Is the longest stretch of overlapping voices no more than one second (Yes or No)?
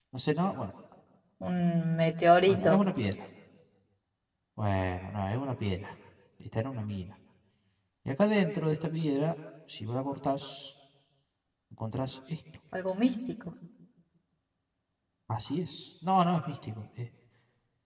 Yes